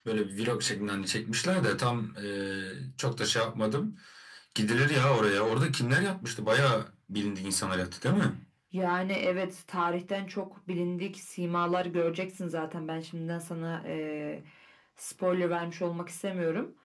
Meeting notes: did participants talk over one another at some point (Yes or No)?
No